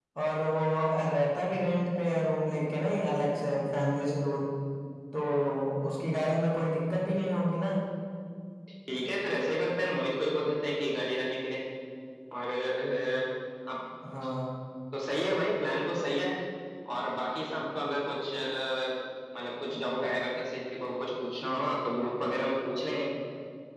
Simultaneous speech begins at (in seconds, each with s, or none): none